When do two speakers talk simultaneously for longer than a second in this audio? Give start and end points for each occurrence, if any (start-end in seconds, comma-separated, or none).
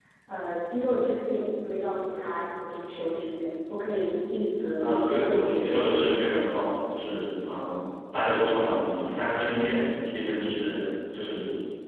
4.8-6.2